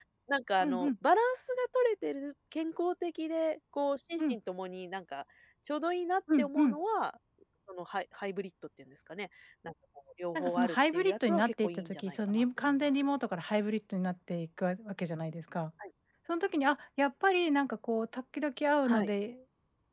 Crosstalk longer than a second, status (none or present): present